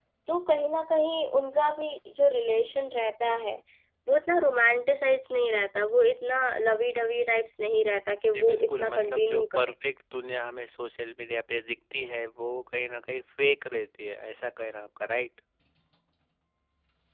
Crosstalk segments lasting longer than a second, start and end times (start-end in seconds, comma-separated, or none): 8.3-9.7